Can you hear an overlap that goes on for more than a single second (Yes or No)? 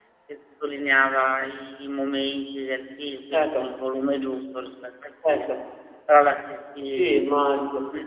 No